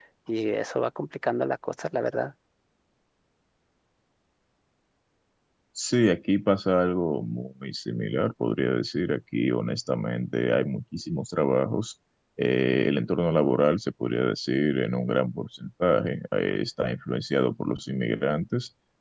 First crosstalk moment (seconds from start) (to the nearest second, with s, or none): none